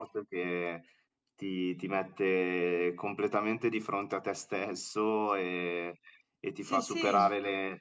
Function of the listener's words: listening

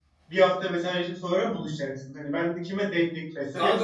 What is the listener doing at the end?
taking over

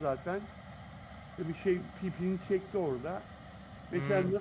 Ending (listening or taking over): listening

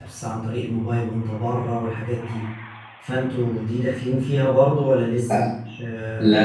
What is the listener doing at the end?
taking over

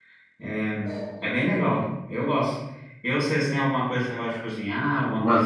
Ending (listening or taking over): taking over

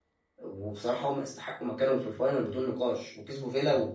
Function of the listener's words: taking over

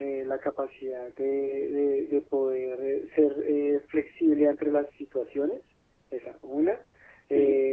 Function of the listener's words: listening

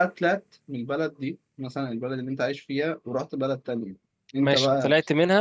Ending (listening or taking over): taking over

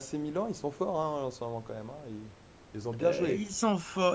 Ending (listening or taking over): taking over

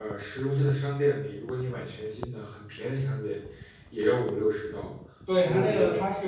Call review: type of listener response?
taking over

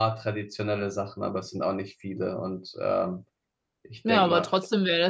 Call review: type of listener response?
taking over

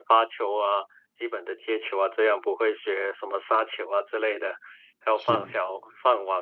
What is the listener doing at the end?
listening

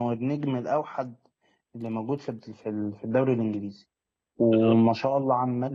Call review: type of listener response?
listening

